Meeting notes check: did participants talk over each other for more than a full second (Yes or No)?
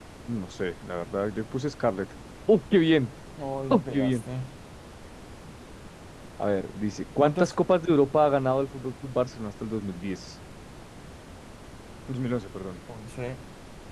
No